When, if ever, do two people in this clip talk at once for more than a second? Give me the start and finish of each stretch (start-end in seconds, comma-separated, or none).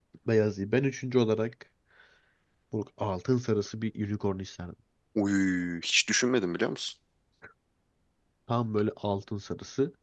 none